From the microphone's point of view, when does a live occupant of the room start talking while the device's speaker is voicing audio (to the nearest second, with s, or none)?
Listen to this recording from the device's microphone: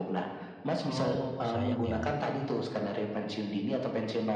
1 s